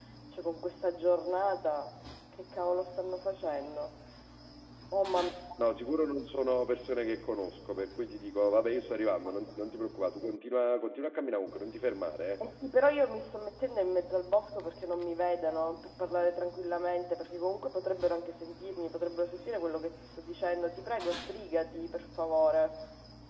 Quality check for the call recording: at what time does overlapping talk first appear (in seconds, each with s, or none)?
none